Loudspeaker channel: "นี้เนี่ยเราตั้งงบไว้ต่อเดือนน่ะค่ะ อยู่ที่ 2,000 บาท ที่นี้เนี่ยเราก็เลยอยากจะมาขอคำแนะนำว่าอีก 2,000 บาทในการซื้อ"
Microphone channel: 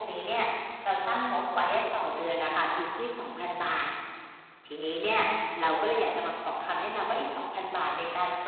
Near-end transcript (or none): none